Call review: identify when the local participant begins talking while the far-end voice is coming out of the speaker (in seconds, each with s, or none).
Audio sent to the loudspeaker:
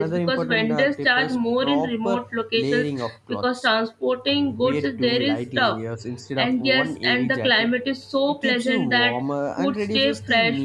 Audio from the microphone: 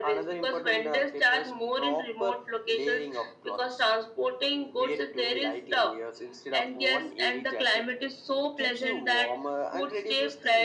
none